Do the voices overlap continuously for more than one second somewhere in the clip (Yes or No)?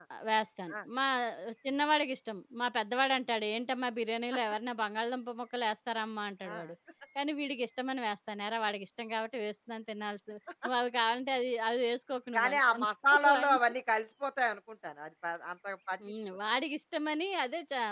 No